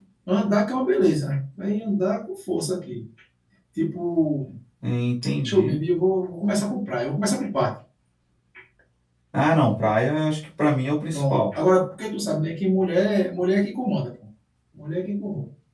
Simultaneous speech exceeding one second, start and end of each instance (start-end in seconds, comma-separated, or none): none